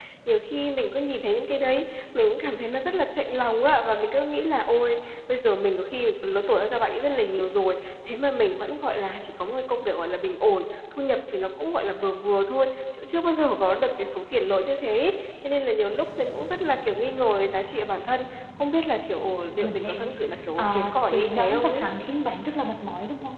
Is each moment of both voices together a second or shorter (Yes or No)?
No